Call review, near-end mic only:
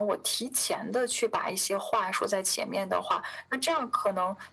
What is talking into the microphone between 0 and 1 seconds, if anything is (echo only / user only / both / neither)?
echo only